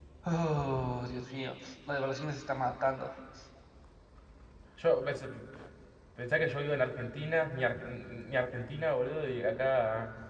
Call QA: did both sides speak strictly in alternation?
Yes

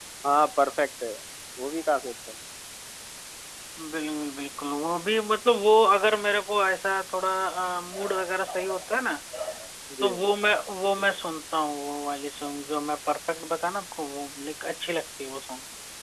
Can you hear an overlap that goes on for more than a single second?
No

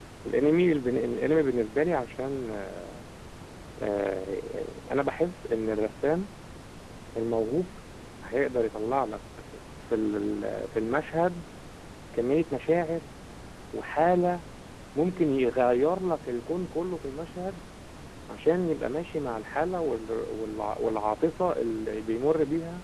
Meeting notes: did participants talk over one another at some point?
No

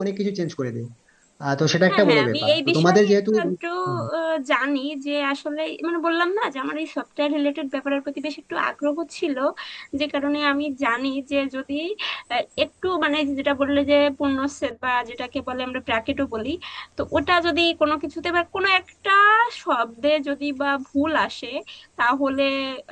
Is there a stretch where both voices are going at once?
Yes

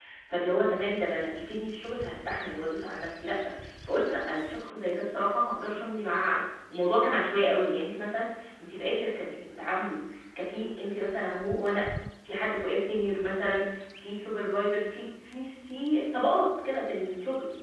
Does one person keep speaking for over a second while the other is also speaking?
No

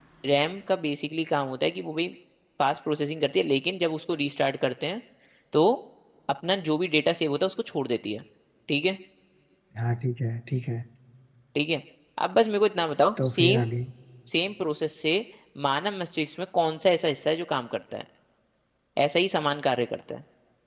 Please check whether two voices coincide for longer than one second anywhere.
No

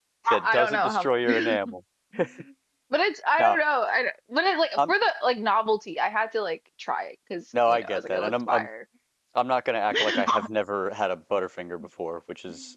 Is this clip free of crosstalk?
No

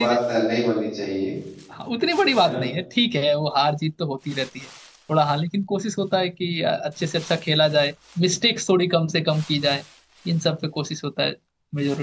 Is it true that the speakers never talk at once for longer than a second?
Yes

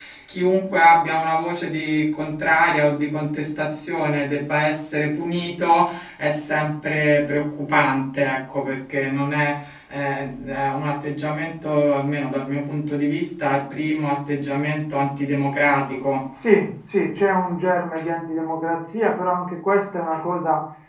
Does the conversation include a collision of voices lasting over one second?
No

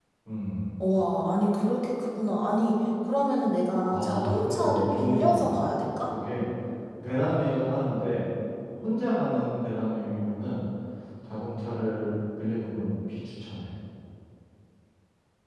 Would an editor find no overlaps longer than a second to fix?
No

